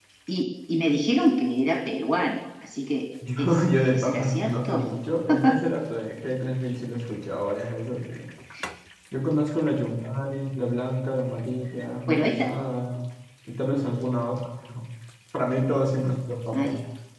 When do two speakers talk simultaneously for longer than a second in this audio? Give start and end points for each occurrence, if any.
3.4-4.8

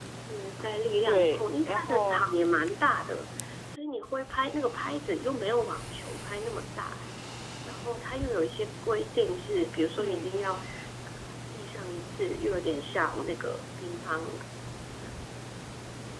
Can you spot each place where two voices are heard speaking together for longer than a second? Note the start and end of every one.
1.0-2.3

